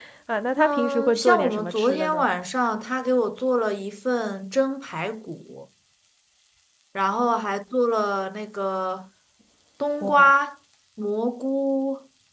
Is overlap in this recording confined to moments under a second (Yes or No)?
No